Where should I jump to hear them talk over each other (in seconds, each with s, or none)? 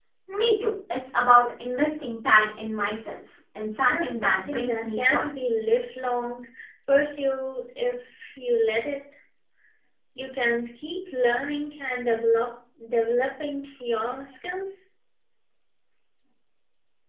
3.9 s